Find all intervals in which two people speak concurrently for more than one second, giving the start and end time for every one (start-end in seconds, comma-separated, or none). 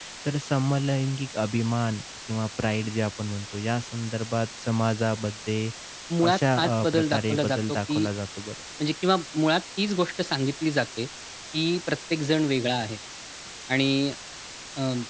6.2-8.0